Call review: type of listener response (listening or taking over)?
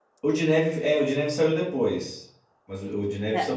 listening